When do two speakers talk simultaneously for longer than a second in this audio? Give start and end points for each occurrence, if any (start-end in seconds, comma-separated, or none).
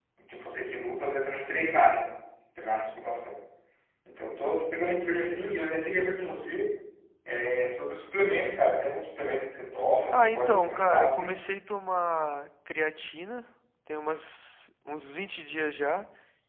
10.1-11.4